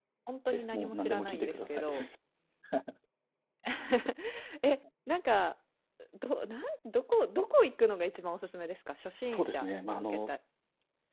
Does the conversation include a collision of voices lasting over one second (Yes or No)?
Yes